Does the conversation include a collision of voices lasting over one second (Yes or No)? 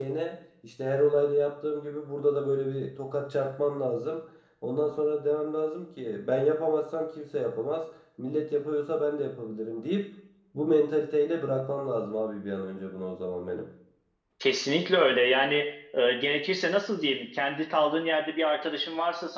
No